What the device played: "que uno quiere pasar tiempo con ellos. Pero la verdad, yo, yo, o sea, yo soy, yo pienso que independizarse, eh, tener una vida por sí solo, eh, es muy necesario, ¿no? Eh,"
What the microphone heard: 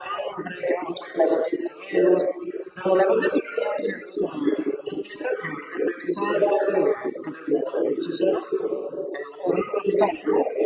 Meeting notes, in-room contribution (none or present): none